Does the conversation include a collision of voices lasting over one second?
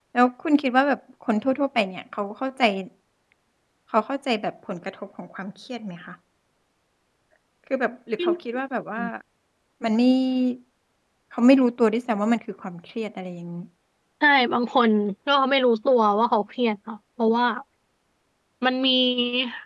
No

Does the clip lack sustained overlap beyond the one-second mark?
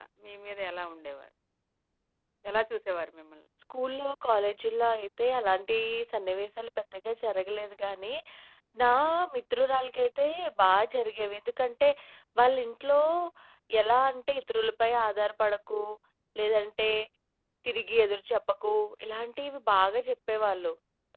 Yes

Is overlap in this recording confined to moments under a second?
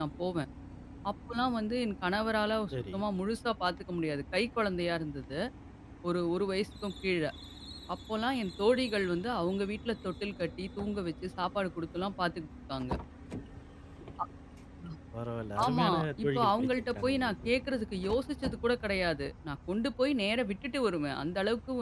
No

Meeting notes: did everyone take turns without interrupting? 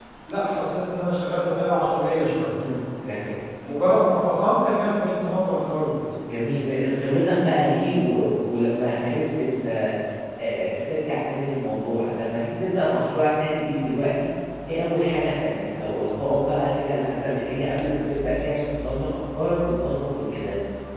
Yes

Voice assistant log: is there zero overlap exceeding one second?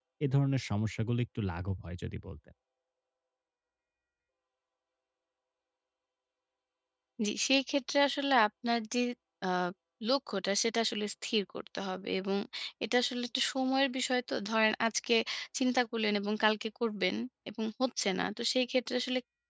Yes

